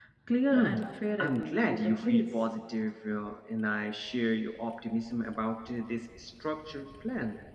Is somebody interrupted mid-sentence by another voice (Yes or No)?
Yes